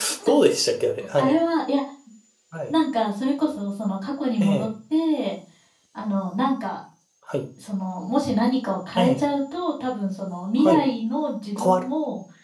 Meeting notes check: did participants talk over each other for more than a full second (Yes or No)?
No